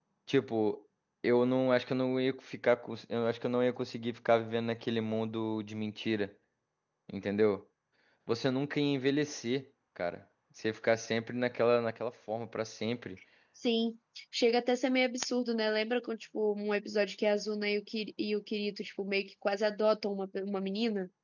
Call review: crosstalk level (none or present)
none